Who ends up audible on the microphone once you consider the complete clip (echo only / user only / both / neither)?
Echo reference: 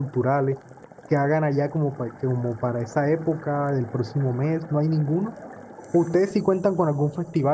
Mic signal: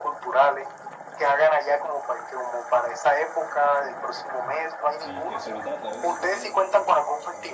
both